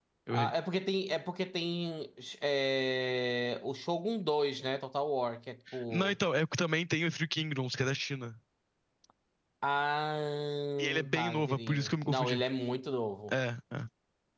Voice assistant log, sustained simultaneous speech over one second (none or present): present